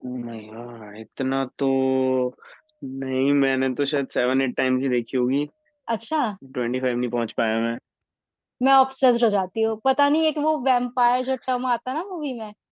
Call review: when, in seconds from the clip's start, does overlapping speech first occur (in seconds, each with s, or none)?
none